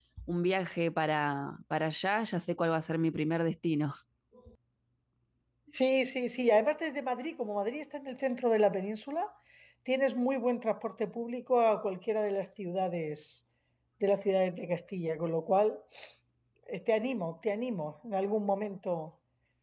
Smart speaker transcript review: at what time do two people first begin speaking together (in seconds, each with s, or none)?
none